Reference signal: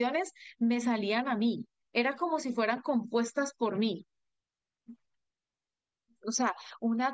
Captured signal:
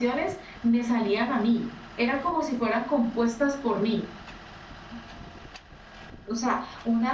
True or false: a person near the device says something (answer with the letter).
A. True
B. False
B